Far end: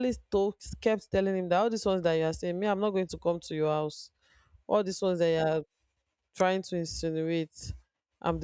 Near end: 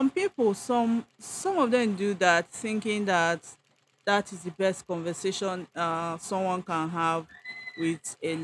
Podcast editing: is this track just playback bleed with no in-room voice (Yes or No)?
No